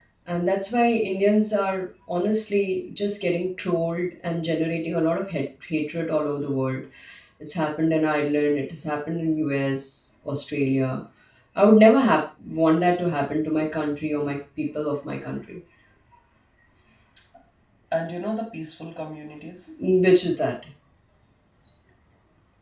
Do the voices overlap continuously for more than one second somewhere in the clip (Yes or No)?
No